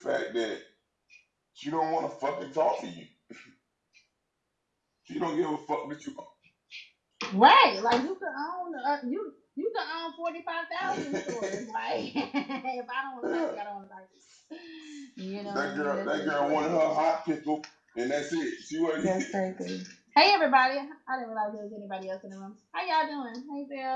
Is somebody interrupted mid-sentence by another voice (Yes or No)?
Yes